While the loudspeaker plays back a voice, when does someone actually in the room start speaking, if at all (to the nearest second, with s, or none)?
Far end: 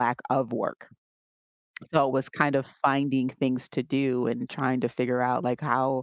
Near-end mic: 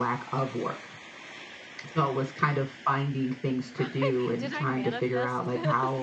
4 s